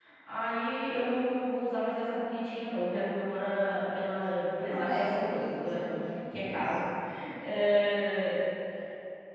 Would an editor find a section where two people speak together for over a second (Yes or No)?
Yes